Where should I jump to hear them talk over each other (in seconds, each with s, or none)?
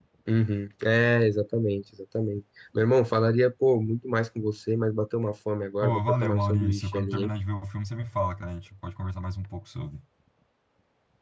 5.8 s